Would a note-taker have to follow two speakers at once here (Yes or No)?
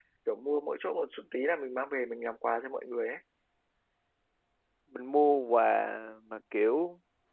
No